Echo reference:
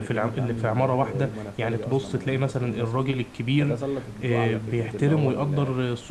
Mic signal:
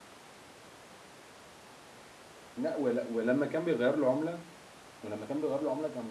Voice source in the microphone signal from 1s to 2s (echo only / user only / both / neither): neither